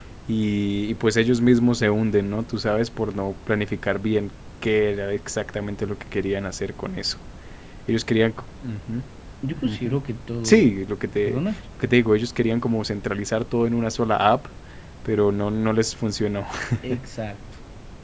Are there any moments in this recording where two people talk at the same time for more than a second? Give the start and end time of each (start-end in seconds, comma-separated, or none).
none